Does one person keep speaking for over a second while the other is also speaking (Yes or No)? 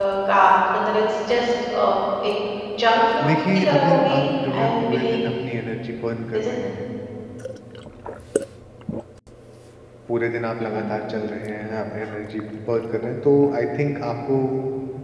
Yes